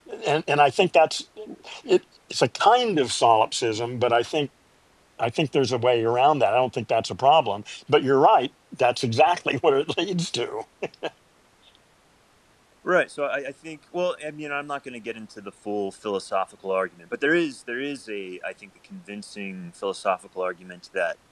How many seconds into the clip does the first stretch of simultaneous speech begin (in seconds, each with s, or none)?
none